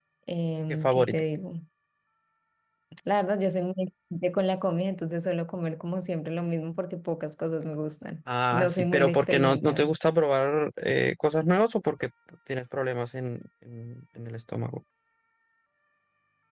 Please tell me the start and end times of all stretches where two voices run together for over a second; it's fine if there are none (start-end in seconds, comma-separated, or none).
8.5-9.9